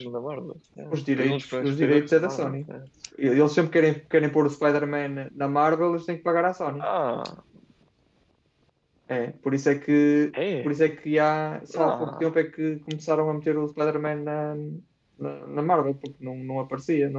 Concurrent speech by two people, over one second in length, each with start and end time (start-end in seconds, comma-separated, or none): 0.9-2.7